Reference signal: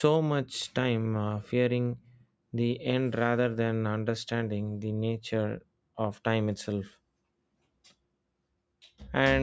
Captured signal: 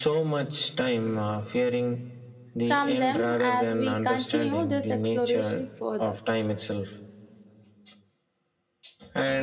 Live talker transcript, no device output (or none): from them as we continue this exploration further.